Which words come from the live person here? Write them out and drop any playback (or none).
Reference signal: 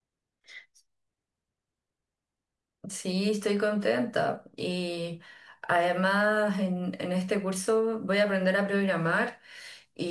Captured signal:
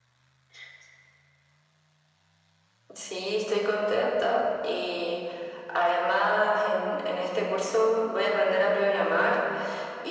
none